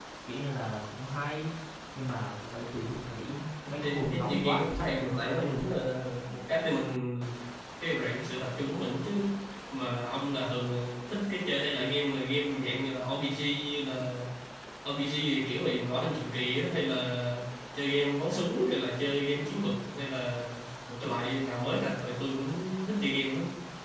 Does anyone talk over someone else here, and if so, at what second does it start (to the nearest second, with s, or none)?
4 s